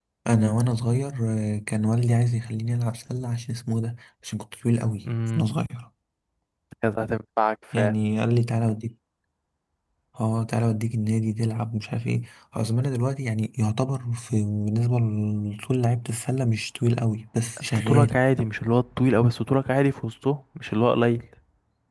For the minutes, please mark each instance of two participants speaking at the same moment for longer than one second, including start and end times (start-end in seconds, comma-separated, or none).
none